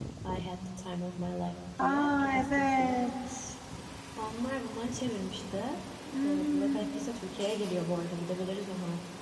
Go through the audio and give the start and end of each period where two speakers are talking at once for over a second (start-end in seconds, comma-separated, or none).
1.8-3.0